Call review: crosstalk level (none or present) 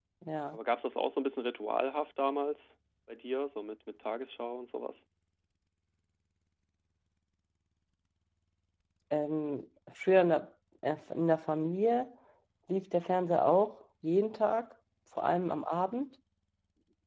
none